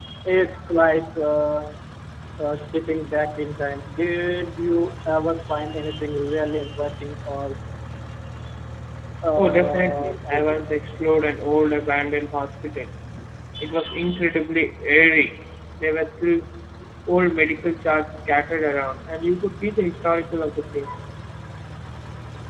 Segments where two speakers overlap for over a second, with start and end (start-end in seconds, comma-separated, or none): 9.4-10.6